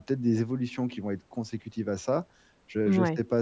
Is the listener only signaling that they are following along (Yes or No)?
Yes